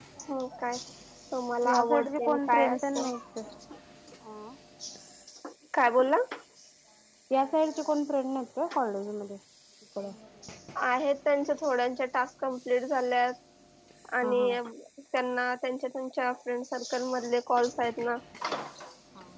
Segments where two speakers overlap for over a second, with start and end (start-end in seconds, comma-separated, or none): 1.7-3.1